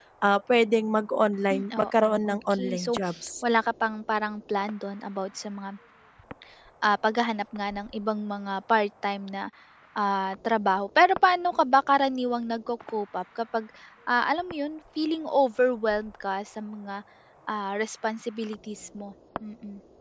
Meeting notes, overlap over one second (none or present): present